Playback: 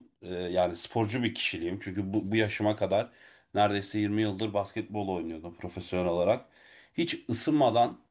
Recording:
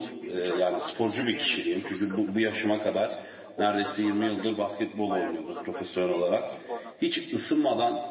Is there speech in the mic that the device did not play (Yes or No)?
Yes